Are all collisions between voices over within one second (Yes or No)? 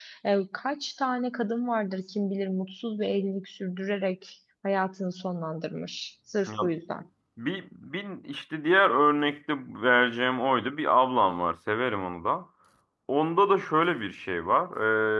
Yes